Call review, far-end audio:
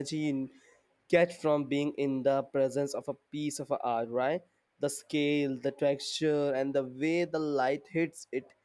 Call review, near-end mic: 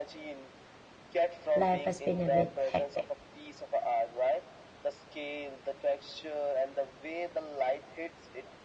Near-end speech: present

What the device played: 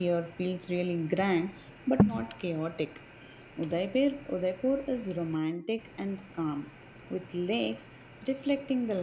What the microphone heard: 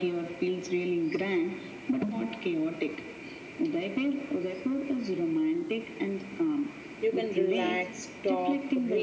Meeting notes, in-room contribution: present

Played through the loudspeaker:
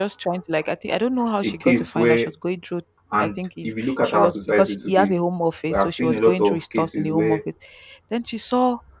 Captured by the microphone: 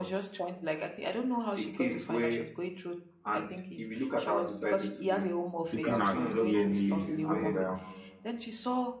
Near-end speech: present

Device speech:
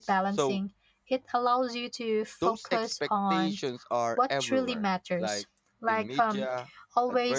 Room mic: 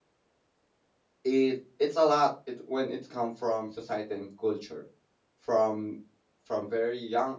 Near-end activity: present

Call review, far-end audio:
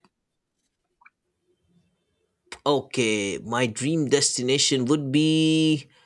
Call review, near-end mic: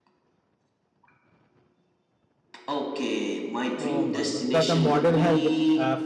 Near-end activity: present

